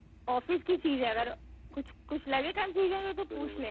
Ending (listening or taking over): taking over